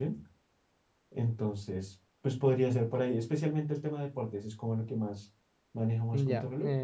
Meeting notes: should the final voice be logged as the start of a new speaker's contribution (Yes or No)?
Yes